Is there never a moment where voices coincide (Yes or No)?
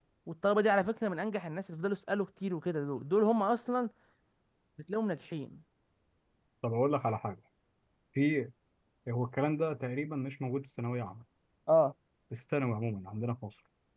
Yes